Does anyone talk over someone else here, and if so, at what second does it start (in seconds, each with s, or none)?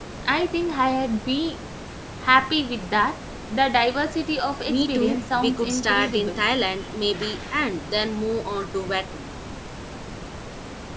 4.7 s